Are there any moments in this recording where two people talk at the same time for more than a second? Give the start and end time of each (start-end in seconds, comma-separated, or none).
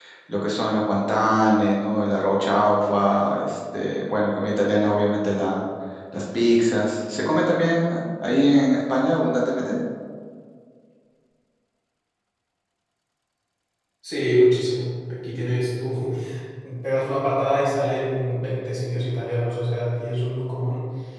none